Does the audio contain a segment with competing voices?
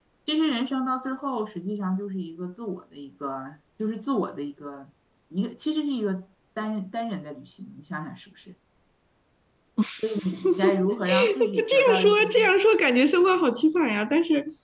Yes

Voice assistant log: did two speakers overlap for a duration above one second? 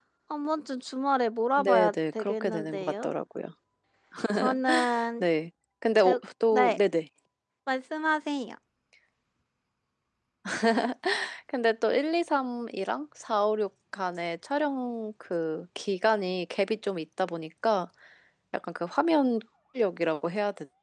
Yes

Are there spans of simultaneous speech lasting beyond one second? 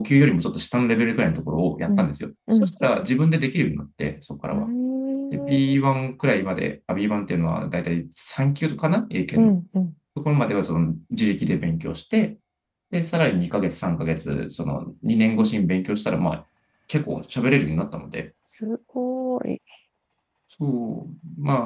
No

